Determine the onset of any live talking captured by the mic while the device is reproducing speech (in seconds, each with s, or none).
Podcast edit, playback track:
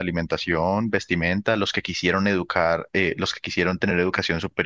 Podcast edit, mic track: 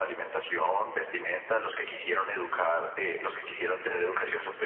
none